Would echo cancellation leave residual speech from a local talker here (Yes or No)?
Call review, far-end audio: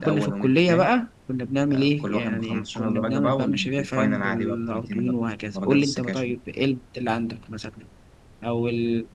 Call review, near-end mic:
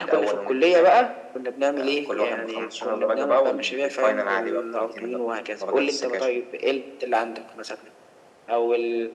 No